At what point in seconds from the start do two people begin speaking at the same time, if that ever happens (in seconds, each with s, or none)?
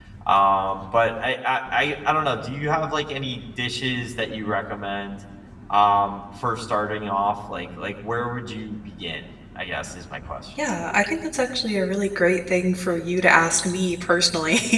none